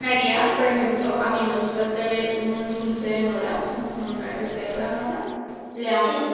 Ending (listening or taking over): listening